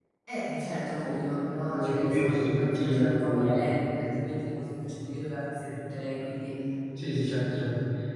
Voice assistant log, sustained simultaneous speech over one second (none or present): present